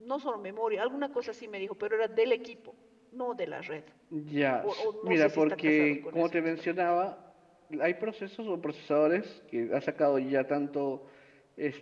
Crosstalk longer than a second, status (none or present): present